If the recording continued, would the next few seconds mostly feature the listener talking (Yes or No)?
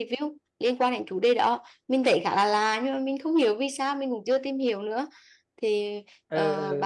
Yes